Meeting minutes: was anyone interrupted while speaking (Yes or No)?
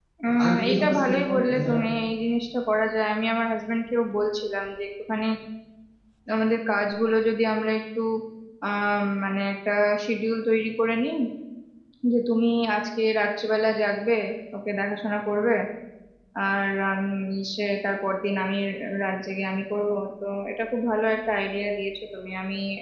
Yes